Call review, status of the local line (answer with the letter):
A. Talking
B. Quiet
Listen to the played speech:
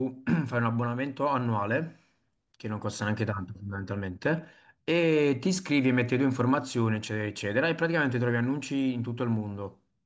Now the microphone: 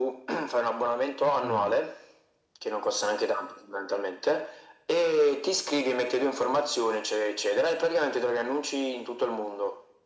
A